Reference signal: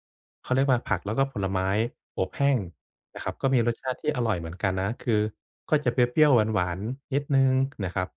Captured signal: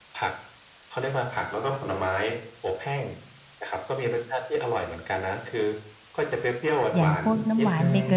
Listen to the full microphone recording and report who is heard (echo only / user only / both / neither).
both